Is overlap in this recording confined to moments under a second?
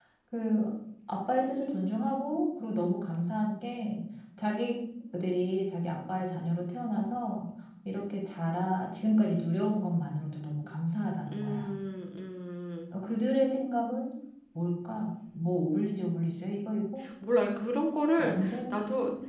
Yes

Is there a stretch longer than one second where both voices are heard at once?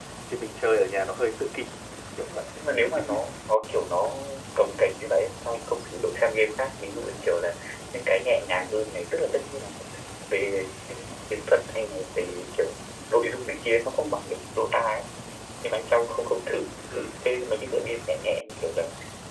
No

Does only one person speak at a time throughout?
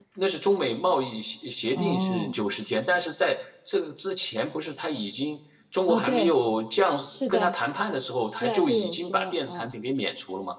No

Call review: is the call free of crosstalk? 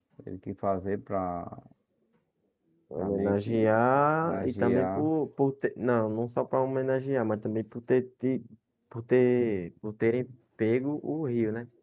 No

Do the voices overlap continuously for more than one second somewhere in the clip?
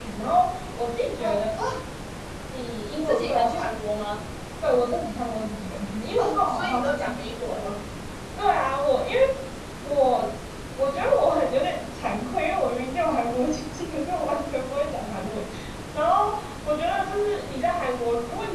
Yes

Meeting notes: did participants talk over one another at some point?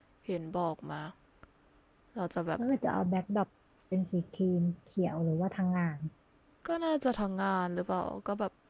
No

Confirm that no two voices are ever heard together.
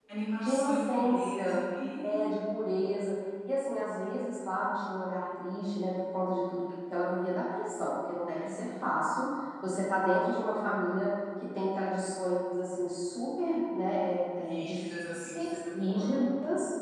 No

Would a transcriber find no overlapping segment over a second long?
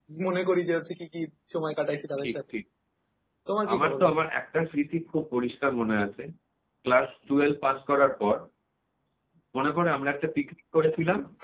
Yes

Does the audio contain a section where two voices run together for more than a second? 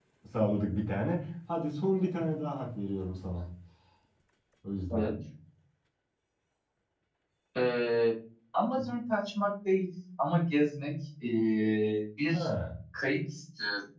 No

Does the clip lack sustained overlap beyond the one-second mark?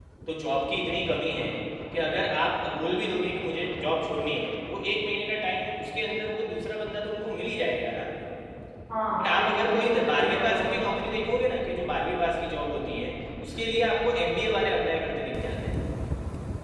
No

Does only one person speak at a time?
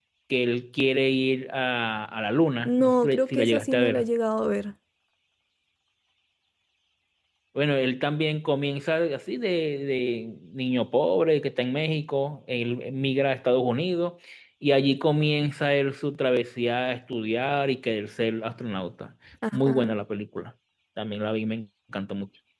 No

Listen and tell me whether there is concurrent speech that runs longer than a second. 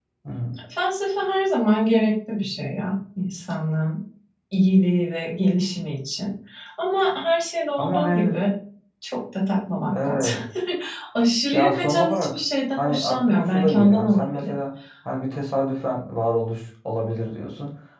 Yes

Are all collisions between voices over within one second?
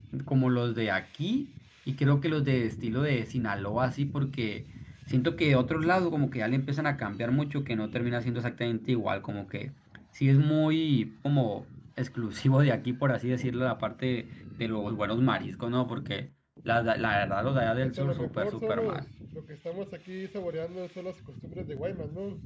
No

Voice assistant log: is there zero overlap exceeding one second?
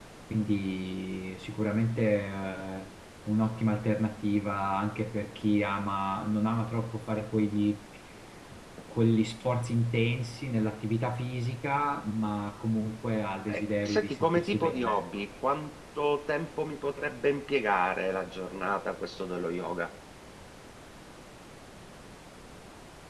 No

